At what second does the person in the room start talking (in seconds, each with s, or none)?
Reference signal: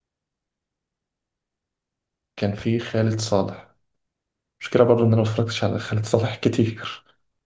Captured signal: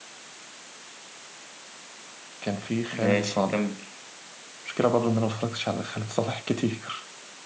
2.9 s